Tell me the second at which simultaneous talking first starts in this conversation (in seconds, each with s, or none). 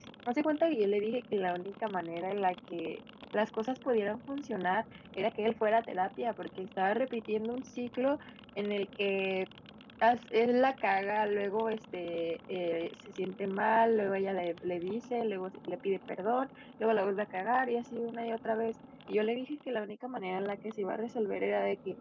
none